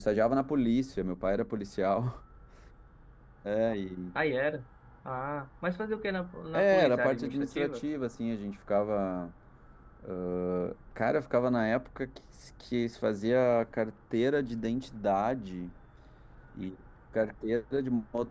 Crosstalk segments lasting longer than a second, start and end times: 6.5-7.8

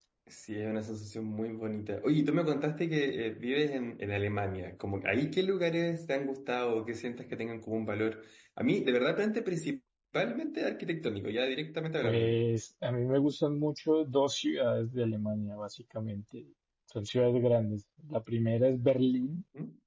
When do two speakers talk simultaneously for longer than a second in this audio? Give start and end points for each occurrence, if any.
none

